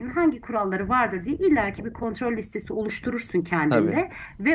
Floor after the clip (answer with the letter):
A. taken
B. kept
B